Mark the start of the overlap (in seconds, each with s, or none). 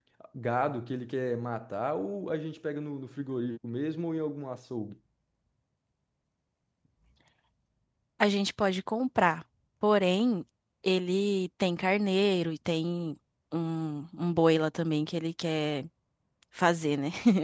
none